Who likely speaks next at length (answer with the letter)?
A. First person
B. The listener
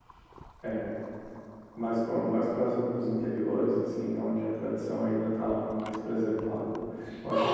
B